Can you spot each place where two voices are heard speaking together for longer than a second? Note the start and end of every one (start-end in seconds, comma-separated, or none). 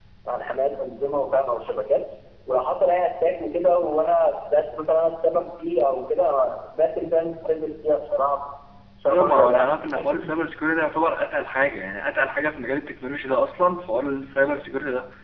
9.1-10.3